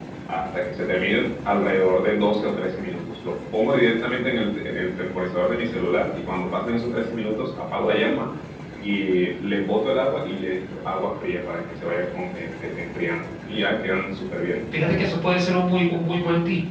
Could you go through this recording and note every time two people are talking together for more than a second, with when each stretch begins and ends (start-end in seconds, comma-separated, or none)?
none